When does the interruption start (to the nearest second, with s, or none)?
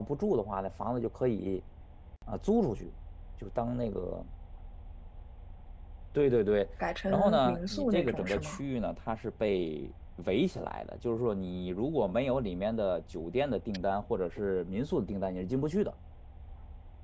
7 s